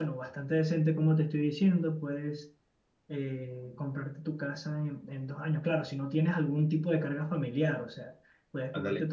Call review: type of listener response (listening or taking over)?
listening